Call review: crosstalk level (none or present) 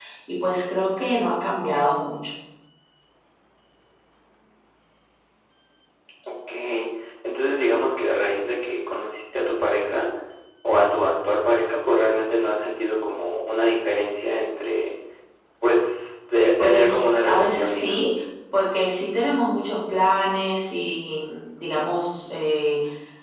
present